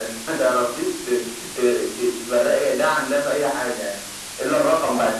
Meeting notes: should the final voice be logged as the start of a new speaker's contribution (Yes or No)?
No